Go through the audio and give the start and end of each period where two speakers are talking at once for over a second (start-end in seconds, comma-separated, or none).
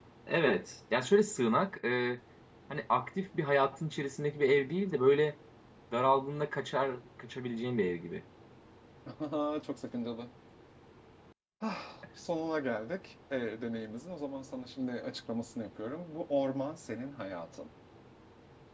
none